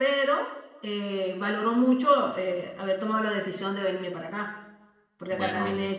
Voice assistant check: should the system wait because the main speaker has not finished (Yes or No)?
Yes